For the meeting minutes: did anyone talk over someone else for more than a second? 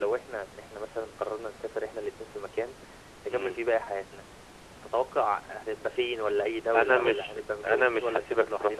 Yes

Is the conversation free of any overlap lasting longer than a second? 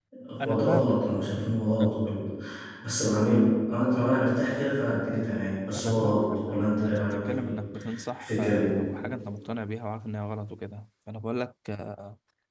No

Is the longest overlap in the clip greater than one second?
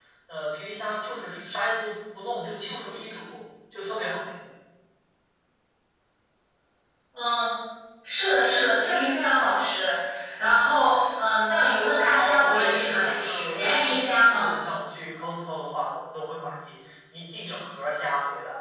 Yes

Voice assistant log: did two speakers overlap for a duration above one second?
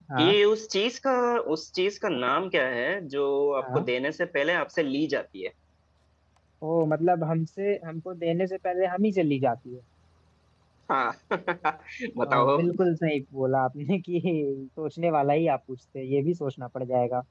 No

